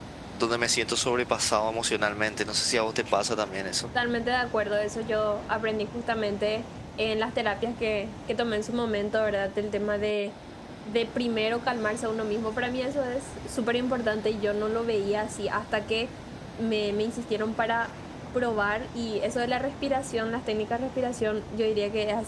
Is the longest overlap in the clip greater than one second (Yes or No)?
No